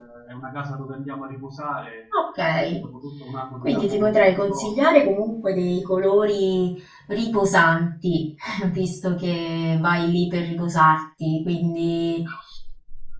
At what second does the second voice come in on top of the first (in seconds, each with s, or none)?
3.6 s